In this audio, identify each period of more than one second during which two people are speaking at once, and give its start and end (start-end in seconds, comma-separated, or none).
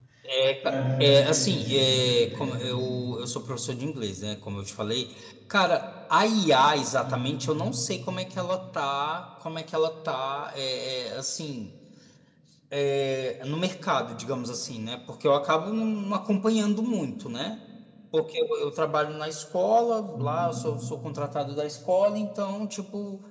0.6-2.8